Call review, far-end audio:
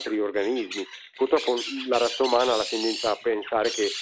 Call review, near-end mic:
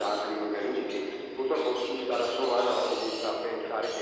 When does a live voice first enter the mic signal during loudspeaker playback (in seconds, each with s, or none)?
none